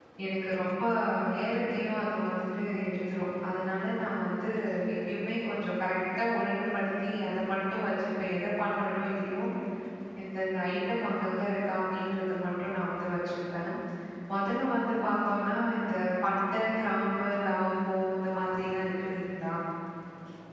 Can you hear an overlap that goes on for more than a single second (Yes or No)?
No